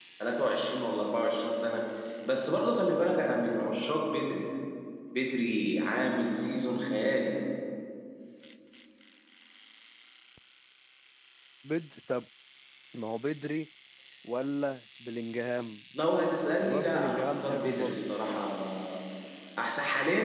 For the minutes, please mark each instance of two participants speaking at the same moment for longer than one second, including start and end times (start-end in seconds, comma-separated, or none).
16.6-18.0